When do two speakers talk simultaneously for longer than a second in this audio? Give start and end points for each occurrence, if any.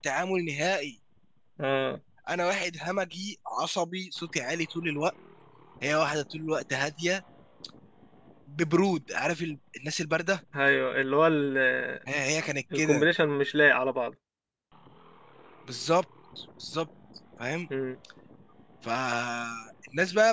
none

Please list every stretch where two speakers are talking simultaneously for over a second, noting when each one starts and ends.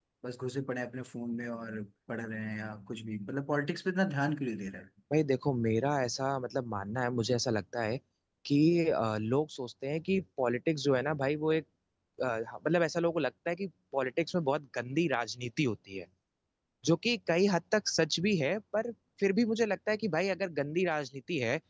none

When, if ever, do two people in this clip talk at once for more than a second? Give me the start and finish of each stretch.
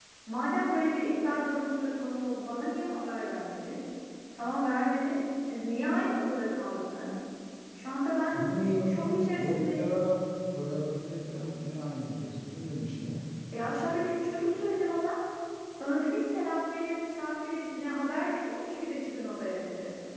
8.3-9.9

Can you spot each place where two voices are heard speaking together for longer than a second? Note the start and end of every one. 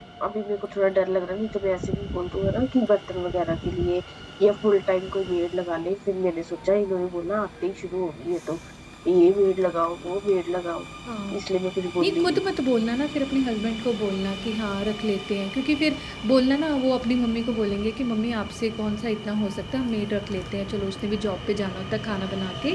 none

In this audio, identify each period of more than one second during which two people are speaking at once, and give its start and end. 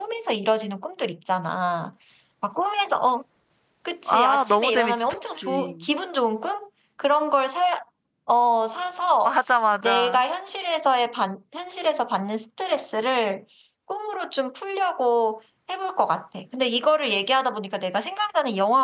4.1-5.7

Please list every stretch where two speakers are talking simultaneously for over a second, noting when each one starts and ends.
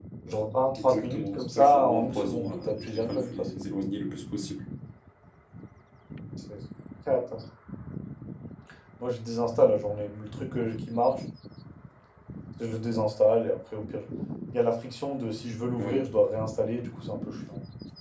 0.8-3.6

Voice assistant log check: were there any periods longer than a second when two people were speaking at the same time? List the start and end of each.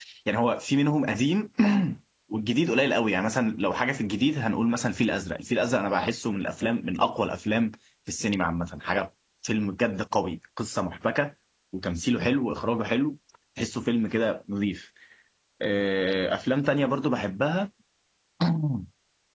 none

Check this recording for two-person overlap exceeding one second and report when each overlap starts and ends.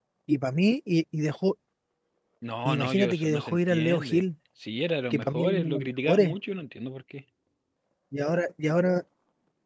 2.6-4.2, 5.1-6.3

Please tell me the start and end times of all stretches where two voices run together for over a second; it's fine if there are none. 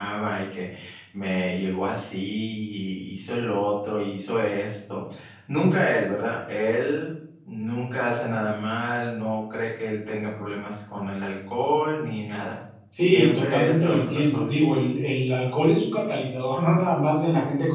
13.1-14.5

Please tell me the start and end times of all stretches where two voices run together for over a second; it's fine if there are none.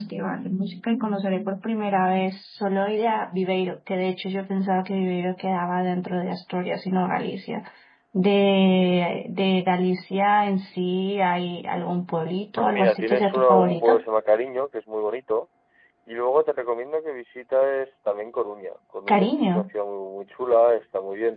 12.6-14.0

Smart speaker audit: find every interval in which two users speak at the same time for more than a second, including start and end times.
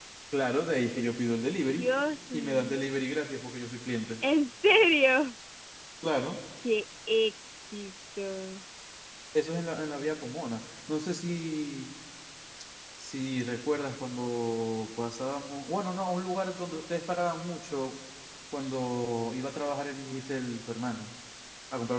none

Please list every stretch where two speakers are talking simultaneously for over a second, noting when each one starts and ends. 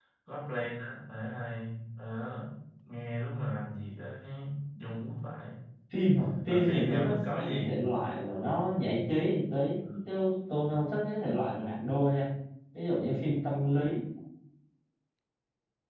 6.5-7.8

